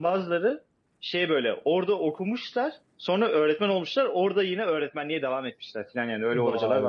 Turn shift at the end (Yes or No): Yes